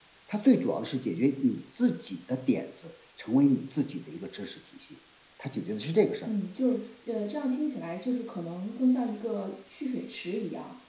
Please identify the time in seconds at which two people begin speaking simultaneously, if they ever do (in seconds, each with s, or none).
none